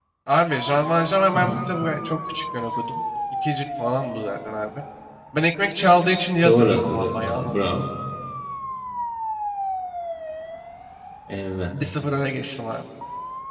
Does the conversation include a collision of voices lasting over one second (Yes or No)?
Yes